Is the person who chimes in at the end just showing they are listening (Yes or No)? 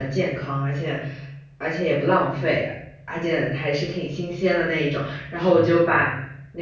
Yes